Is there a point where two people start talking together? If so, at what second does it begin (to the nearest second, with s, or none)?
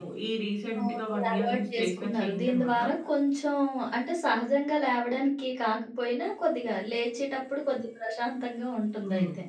1 s